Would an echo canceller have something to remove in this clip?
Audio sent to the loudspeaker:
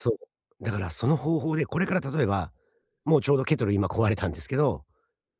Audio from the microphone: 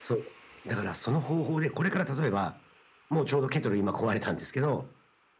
Yes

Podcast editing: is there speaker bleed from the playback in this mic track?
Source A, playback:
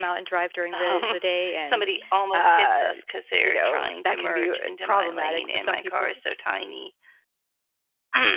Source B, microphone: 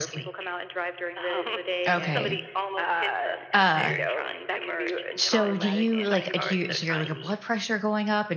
Yes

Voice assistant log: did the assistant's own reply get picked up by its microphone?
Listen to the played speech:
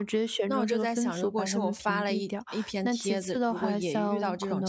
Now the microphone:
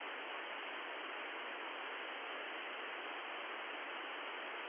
No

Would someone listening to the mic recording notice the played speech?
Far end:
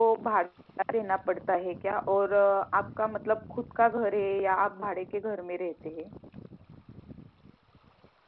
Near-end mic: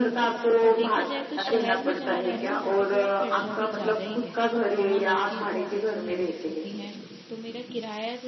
Yes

